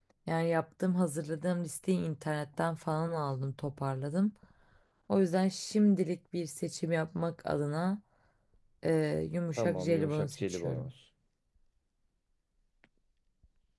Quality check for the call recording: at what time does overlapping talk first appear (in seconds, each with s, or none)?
9.6 s